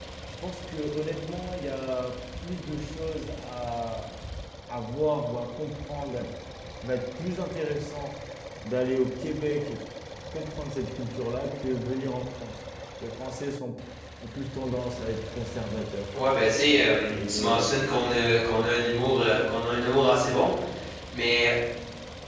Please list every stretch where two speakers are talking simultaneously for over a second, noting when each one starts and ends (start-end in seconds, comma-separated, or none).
none